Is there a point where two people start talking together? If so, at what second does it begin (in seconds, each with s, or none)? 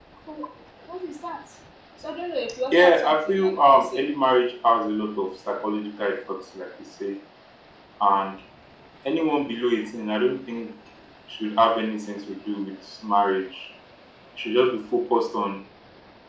2.7 s